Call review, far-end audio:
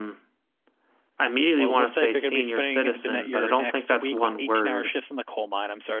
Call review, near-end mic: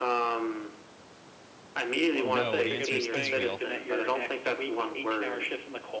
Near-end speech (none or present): present